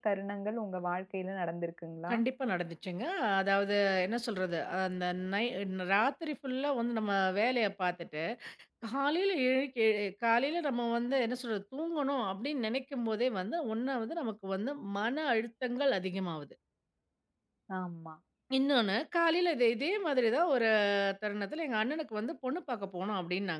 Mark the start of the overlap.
none

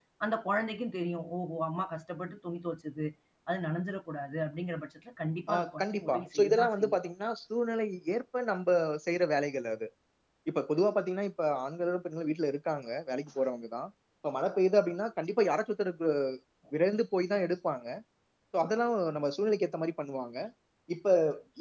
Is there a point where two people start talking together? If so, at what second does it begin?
5.5 s

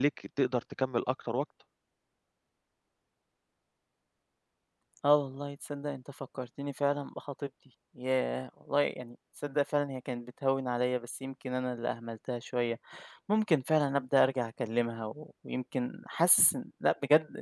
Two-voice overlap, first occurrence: none

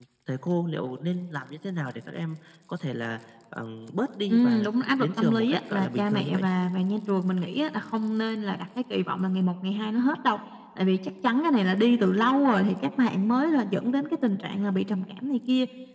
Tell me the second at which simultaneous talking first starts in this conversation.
4.3 s

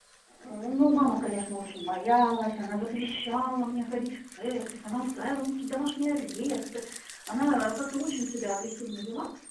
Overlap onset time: none

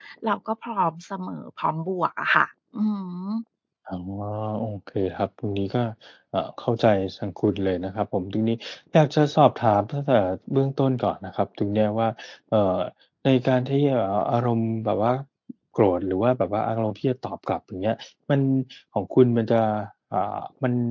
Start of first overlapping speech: none

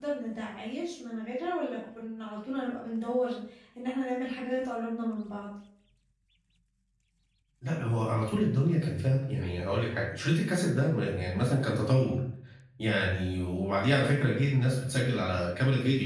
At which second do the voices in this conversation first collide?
none

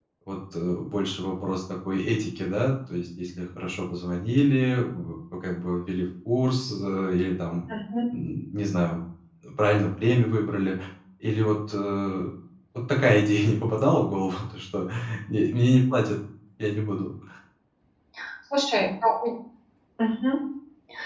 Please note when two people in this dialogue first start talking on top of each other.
none

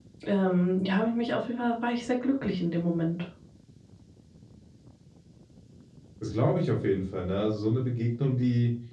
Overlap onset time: none

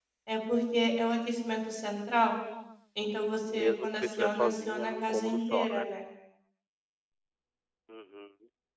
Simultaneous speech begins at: 3.5 s

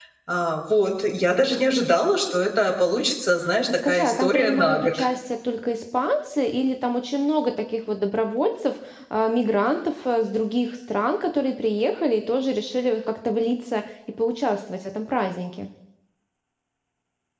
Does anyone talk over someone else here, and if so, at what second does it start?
3.7 s

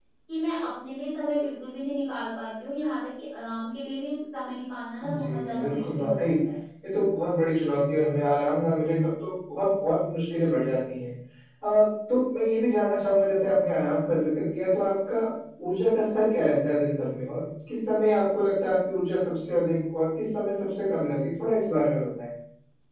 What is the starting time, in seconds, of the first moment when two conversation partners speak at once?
5.0 s

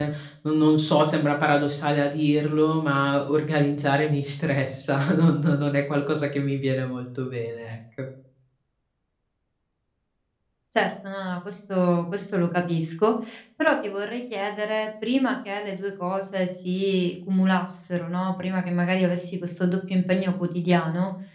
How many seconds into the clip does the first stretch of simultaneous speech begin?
none

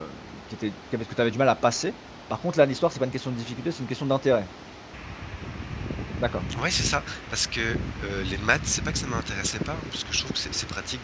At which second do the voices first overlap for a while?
none

